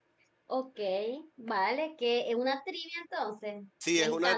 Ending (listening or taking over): taking over